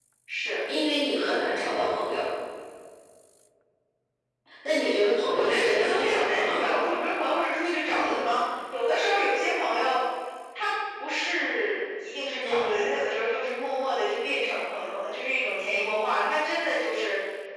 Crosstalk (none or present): present